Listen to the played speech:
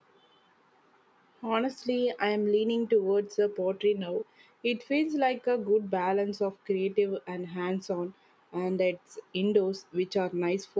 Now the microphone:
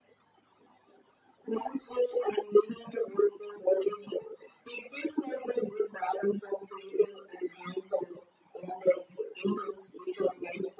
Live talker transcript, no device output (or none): none